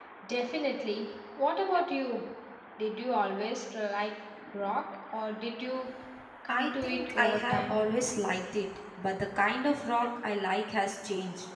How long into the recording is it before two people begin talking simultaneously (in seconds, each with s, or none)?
6.5 s